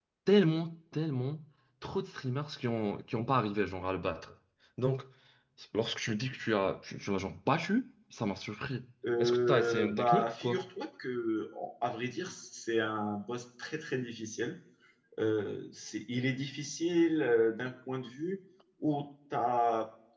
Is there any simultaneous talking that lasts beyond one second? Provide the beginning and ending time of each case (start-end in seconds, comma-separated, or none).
9.2-10.6